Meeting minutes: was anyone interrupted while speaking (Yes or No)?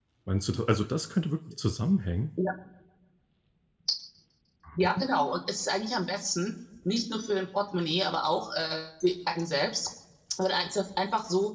No